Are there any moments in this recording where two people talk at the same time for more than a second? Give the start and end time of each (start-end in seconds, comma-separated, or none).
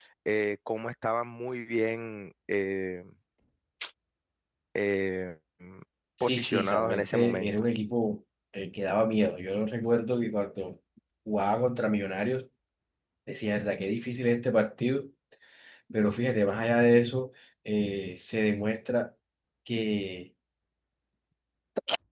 6.2-7.5